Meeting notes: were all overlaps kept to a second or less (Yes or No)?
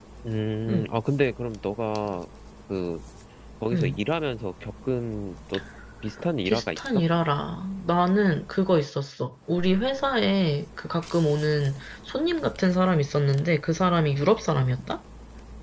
Yes